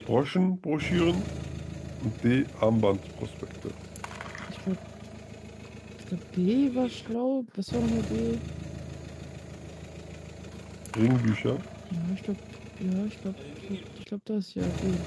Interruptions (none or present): none